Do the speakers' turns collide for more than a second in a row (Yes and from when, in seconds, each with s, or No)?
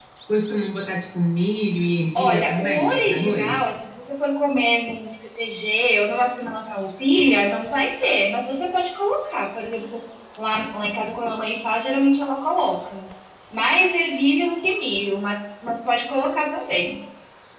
Yes, from 2.2 s